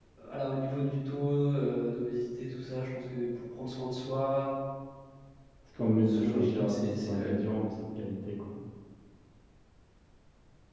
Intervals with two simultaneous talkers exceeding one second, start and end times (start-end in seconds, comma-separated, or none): 6.1-7.6